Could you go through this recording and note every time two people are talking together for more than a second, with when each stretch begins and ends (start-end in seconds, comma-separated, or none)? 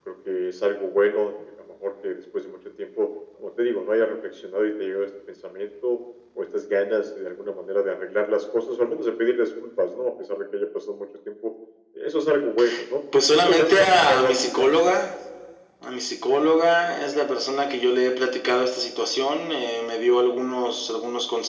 13.3-14.8